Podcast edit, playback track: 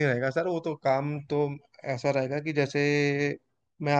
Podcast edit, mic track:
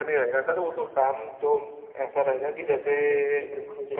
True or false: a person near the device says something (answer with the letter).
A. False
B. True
B